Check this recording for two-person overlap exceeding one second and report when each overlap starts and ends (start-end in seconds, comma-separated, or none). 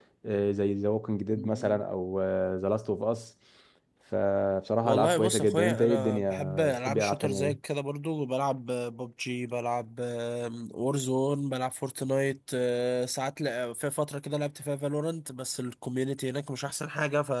4.8-7.6